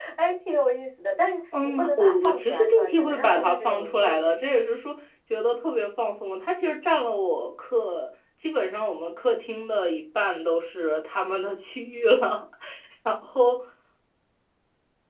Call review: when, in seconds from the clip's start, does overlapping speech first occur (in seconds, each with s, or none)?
1.5 s